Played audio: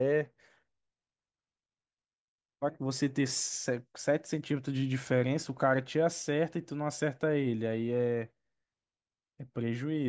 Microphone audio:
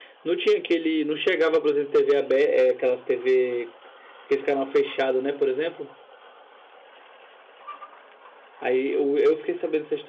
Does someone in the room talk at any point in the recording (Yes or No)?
Yes